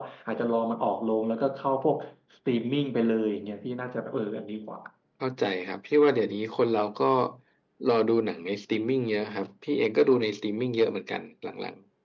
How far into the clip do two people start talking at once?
none

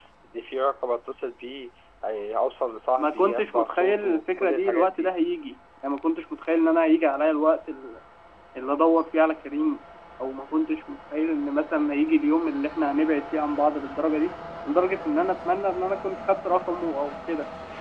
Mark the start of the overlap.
3.0 s

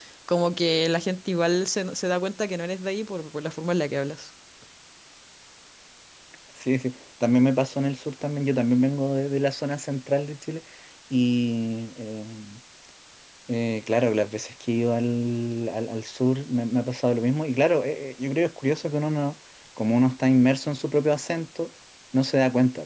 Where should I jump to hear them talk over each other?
none

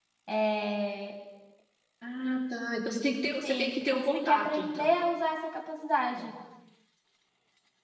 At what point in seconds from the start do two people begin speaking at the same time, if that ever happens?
3.4 s

